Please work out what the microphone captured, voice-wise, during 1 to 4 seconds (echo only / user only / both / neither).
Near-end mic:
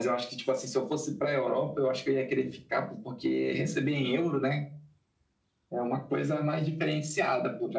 echo only